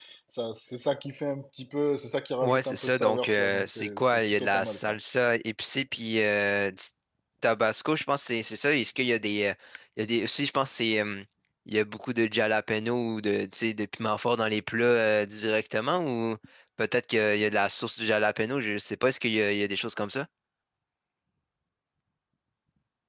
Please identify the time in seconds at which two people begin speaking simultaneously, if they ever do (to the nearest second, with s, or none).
2 s